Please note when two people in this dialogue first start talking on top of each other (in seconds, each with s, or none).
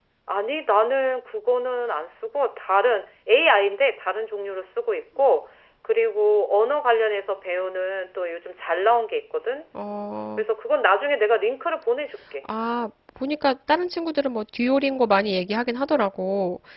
none